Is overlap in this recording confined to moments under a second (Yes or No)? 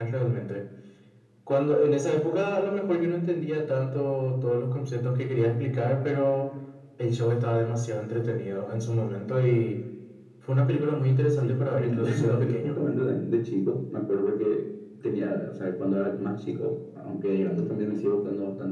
No